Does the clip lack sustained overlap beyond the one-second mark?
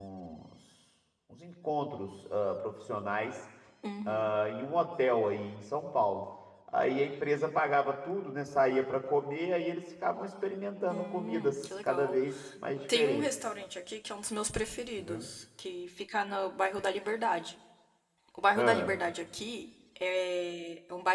No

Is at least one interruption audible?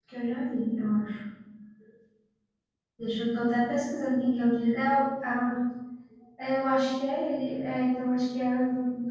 No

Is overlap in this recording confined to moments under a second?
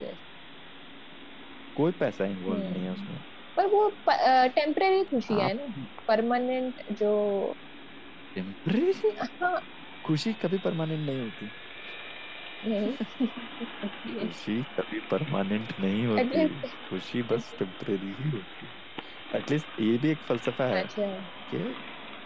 Yes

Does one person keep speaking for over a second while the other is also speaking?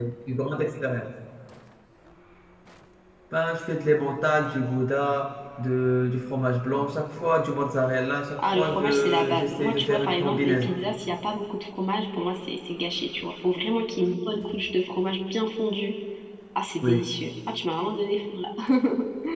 Yes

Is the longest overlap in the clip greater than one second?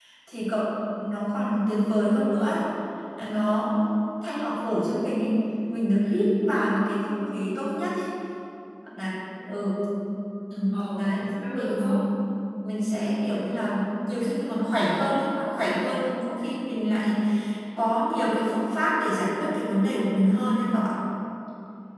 Yes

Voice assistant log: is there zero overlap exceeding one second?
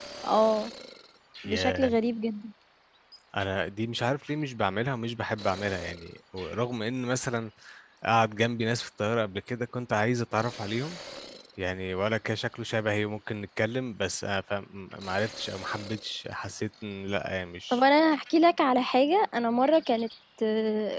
Yes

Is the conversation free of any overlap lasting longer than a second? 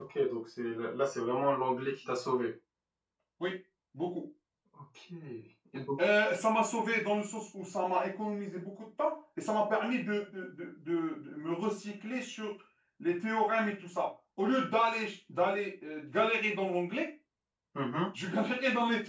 Yes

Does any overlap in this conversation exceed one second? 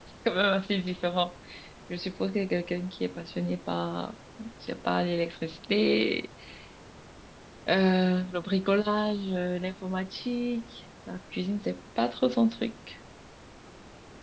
No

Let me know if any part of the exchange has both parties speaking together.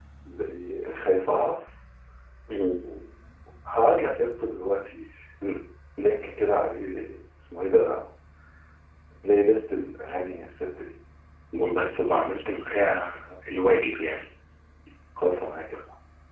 No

